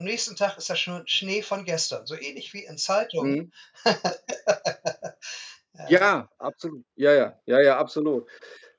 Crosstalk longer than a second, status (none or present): none